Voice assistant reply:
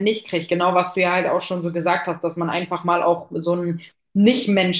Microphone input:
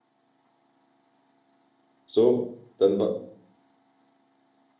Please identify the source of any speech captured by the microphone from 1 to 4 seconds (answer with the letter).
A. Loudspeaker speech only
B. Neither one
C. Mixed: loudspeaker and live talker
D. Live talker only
D